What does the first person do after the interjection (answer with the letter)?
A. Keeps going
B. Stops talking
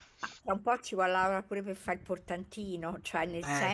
A